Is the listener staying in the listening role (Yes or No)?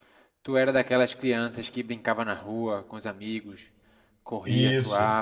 No